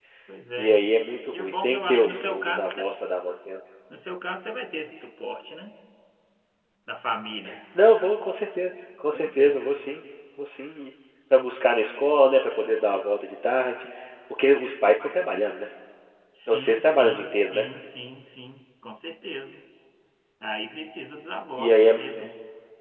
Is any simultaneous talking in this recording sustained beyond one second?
Yes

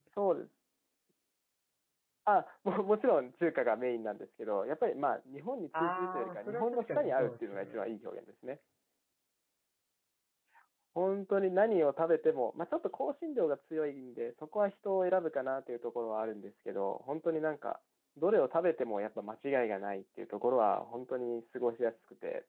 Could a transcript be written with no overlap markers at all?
No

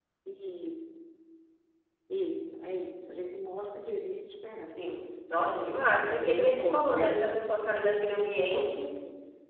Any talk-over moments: Yes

